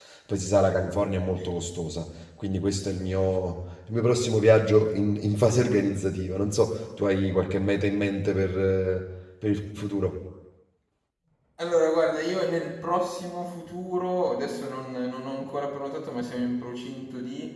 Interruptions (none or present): none